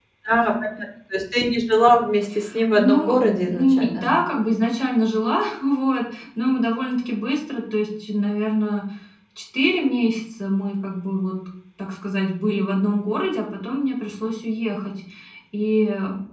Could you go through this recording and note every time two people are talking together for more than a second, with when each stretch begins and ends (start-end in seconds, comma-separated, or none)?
2.7-4.1